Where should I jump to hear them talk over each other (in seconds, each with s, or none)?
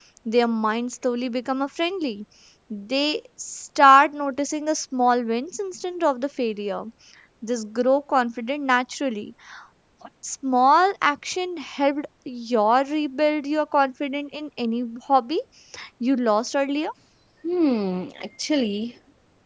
none